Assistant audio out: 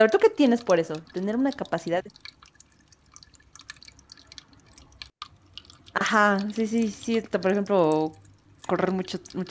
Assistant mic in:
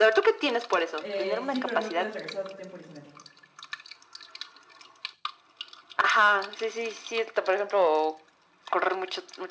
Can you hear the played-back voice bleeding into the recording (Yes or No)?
Yes